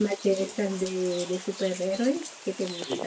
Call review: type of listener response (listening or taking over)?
taking over